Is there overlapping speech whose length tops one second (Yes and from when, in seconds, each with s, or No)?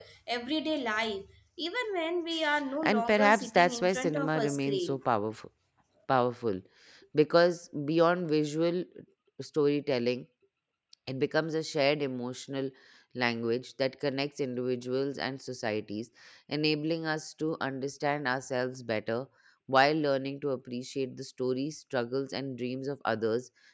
Yes, from 2.8 s